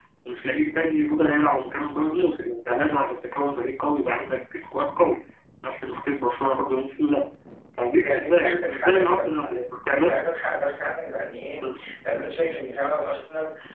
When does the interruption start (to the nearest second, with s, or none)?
8 s